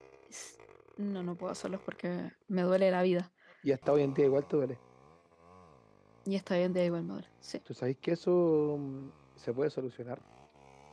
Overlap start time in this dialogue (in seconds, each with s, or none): none